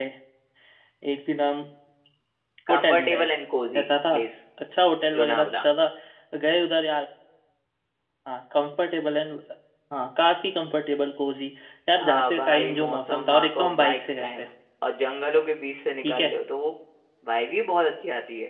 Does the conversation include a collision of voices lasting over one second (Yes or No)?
Yes